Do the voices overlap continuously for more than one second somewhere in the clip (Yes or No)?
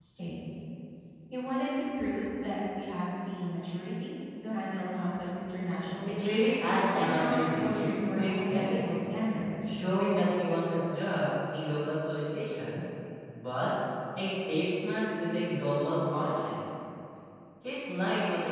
Yes